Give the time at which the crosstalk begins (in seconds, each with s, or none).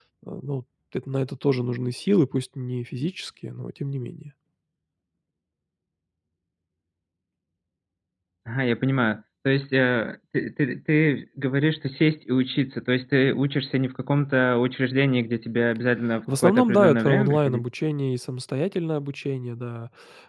16.3 s